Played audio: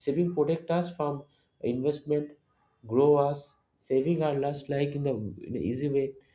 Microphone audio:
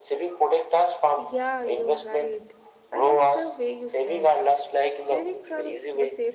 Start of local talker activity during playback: 1.2 s

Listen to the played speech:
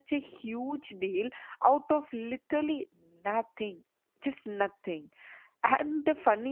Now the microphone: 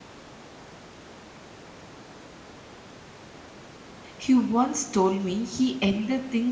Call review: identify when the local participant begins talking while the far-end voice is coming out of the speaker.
4.2 s

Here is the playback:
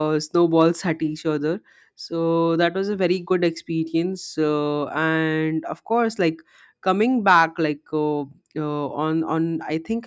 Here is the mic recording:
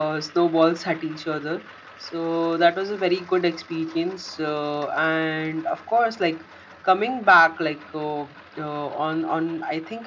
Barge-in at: none

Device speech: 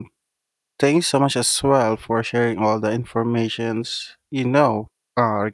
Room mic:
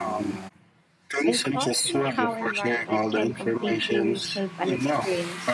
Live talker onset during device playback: 1.2 s

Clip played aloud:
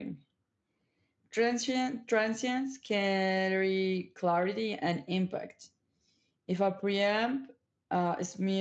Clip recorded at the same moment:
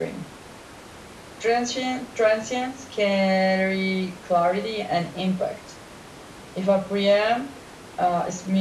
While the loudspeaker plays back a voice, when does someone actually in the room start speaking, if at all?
none

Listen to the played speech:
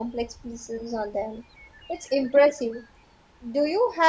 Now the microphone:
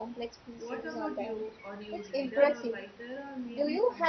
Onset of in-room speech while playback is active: 0.6 s

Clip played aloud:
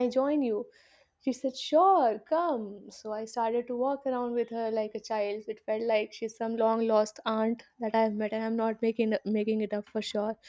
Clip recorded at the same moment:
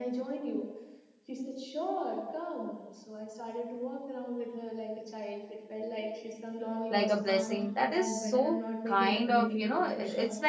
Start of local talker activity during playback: 6.9 s

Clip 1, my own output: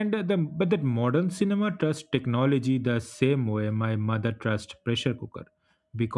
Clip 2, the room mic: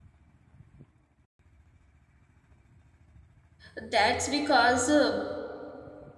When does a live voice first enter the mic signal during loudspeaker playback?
3.7 s

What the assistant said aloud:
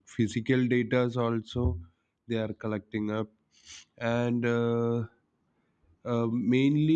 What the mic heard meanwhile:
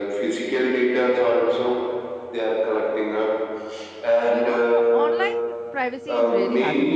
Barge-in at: 4.2 s

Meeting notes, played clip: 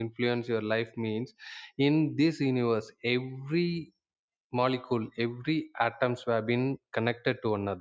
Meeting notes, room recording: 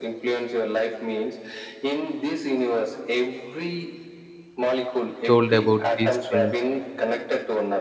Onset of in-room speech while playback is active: 5.2 s

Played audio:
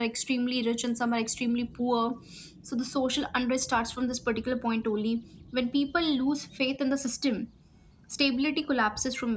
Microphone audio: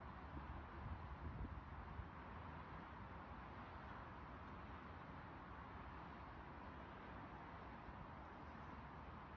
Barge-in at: none

